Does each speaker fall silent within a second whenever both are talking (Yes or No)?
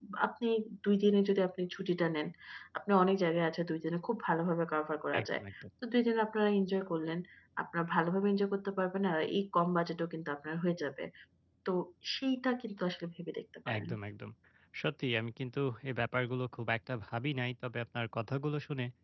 Yes